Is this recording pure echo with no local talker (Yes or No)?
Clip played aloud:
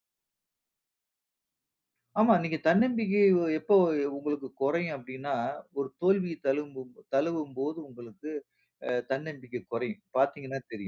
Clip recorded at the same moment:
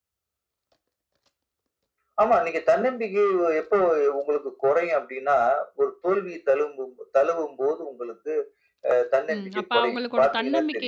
No